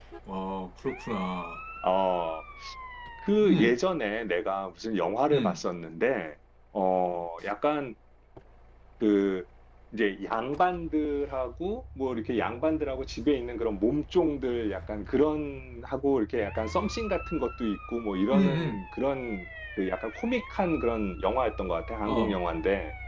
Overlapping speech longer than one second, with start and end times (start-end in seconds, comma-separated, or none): none